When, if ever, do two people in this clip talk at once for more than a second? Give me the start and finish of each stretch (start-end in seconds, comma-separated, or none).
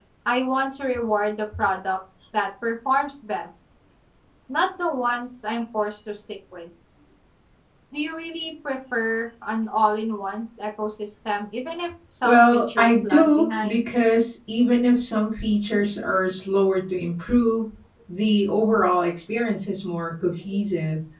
12.2-13.8